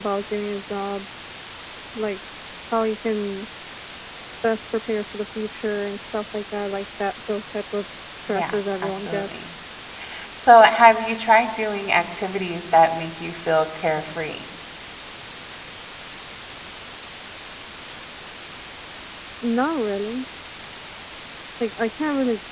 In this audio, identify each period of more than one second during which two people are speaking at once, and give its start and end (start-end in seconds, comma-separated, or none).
8.3-9.5